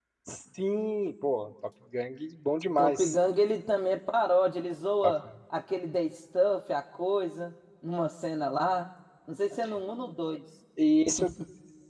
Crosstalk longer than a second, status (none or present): none